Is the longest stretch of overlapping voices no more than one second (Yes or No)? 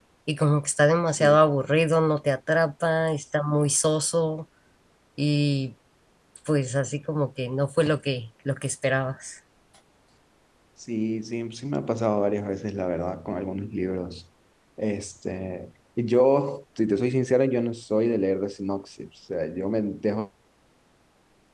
Yes